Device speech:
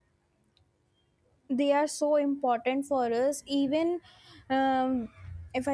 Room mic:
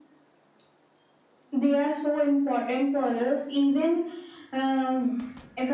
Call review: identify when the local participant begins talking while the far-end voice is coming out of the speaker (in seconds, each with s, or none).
none